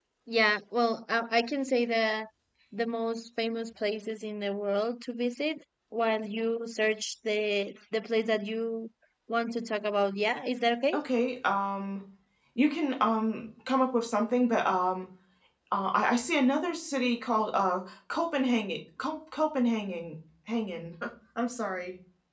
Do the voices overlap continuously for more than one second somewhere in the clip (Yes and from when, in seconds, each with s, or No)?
No